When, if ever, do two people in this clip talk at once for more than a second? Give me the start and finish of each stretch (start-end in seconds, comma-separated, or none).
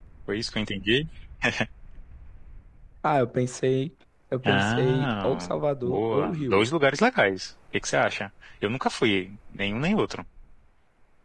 4.5-6.7